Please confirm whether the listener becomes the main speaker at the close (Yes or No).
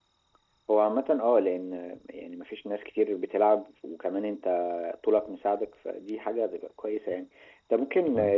No